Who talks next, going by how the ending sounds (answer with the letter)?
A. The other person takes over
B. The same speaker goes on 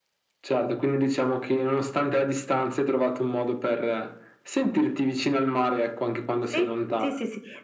A